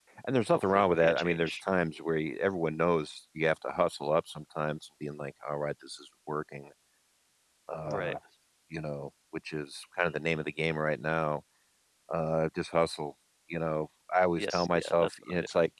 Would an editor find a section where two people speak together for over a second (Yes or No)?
Yes